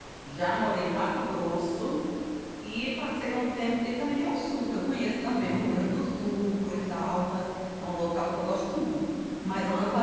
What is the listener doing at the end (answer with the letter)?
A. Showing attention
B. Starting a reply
A